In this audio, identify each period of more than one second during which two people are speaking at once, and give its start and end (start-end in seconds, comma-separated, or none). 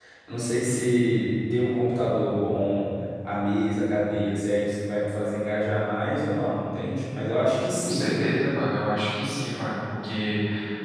none